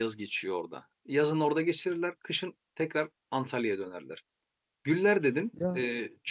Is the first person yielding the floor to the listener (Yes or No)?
No